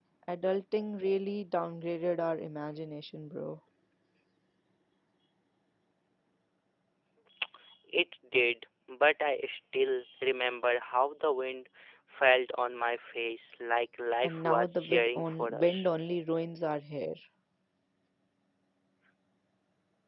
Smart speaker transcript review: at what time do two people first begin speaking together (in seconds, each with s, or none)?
14.2 s